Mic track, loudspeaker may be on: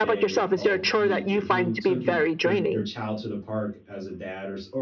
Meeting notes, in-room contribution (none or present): present